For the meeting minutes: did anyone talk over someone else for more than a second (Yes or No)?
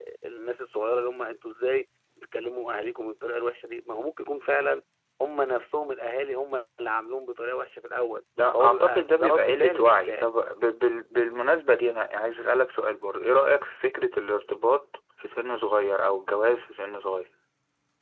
Yes